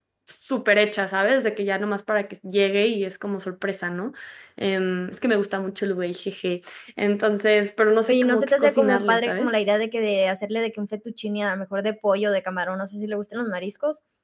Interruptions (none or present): present